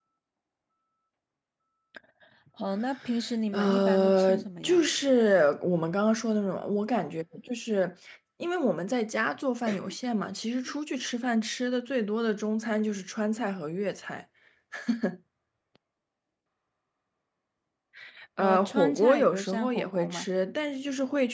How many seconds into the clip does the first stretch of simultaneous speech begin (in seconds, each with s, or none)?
3.5 s